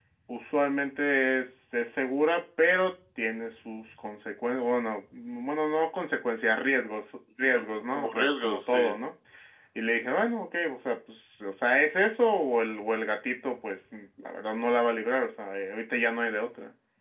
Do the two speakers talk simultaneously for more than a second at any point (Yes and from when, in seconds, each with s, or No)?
Yes, from 7.5 s